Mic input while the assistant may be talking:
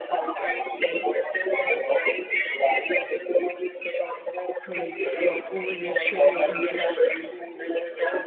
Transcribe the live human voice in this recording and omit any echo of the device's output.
to like uh, over their shared interests,

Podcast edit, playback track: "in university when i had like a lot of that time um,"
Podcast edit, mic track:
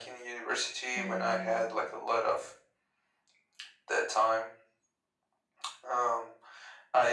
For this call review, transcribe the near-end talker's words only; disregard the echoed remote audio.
and

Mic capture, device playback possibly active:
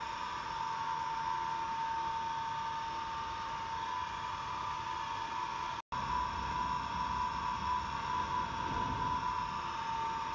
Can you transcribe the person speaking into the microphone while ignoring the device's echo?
none

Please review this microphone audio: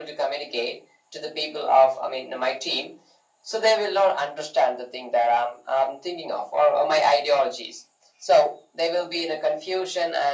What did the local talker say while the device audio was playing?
none

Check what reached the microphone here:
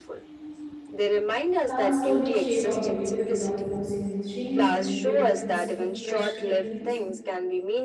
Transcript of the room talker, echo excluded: Plants slowly shape our behavior without forcing any change. When you wake up and see fresh green leaves,

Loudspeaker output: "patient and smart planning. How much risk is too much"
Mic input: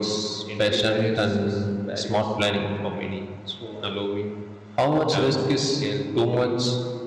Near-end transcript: entry barriers, barriers for many, allowing talents to scale globally.

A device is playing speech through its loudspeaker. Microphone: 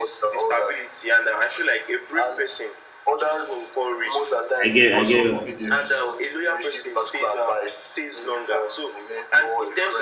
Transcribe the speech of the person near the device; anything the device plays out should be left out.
I get. I get what I'm saying.

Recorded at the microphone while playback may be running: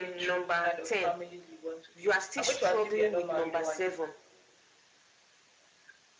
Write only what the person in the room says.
none

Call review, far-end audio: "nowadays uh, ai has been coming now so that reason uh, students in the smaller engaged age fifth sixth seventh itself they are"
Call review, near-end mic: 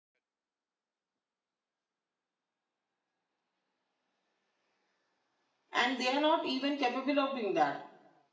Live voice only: and they are not even capable of doing that

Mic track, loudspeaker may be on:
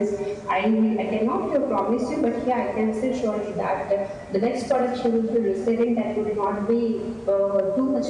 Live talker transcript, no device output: none

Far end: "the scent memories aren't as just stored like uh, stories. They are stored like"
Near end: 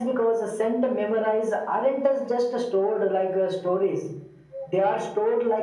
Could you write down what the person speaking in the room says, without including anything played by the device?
none

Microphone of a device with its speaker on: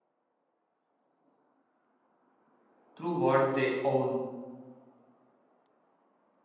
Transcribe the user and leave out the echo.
through what they own.

